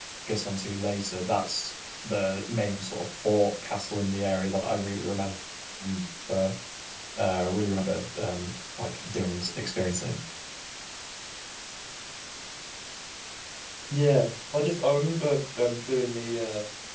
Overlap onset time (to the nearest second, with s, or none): none